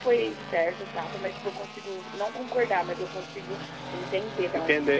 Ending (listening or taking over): taking over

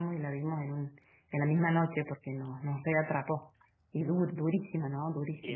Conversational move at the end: taking over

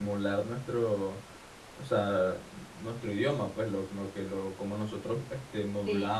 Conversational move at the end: listening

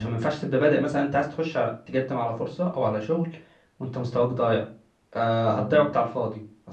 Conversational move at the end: listening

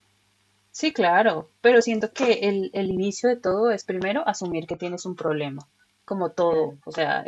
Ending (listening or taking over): listening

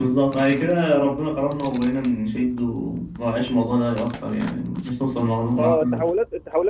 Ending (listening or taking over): taking over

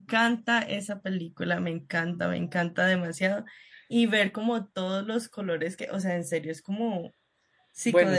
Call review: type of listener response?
taking over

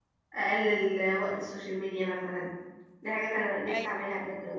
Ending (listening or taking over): listening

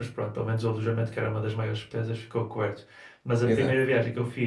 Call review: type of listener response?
listening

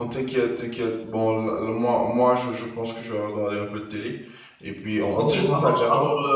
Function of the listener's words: taking over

